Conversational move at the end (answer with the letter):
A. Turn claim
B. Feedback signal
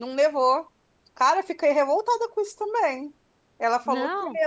B